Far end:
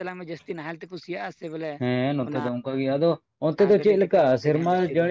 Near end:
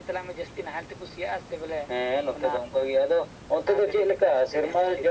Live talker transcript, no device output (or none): none